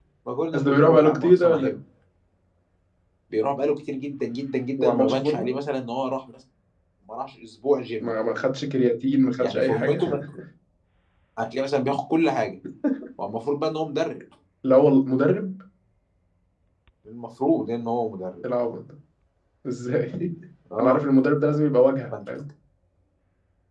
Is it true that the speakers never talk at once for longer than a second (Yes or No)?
No